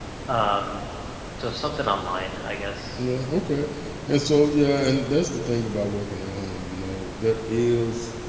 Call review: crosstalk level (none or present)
none